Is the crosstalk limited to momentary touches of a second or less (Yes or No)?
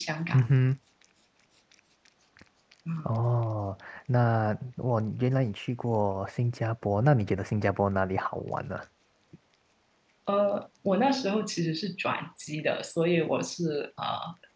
Yes